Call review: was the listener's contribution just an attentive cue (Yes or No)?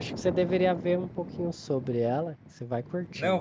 No